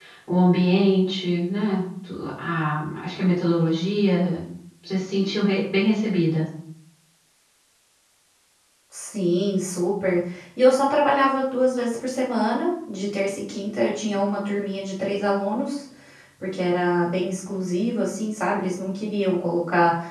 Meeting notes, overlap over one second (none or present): none